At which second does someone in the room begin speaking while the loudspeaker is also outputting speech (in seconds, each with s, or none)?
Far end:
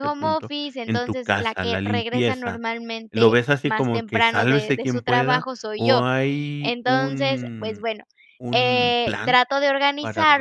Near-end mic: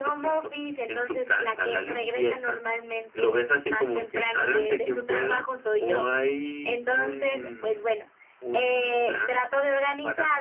none